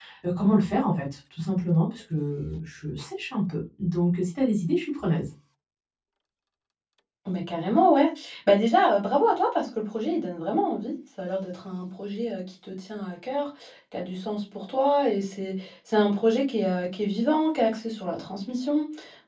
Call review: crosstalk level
none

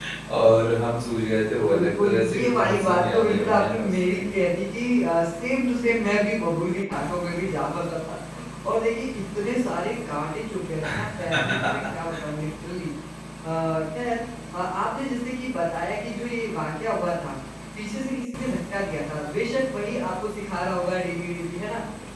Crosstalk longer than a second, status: present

